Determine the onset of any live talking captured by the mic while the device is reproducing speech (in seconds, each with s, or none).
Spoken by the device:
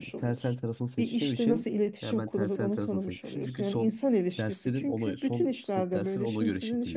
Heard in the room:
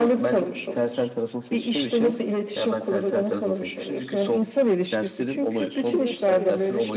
5.8 s